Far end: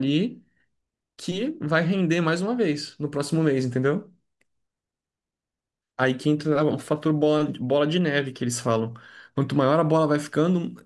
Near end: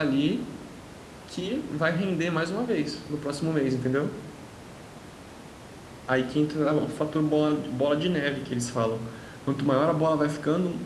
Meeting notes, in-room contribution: none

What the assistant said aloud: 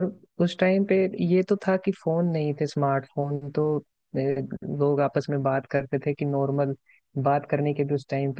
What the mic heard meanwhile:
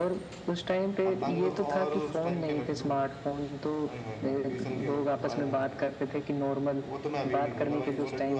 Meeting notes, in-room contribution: present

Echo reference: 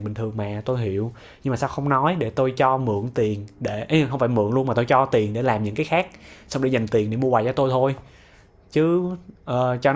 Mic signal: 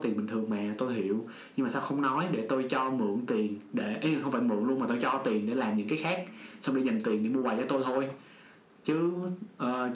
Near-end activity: none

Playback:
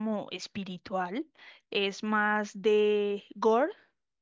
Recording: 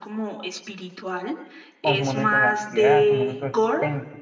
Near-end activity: present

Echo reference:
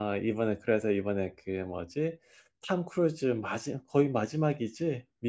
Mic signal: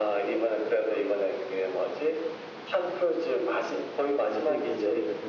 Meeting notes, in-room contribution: present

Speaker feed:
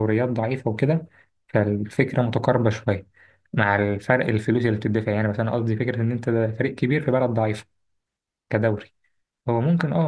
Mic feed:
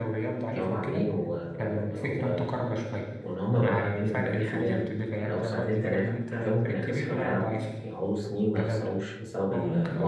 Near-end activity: present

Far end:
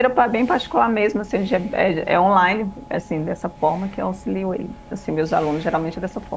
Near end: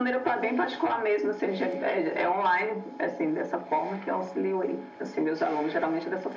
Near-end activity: none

